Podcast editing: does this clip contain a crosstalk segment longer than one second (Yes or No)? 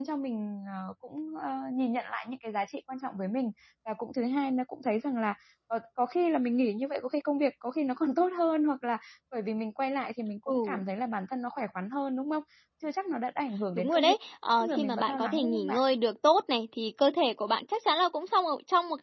Yes